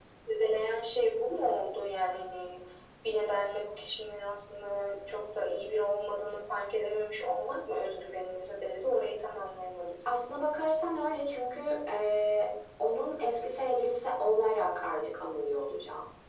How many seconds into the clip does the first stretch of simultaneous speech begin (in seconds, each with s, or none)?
none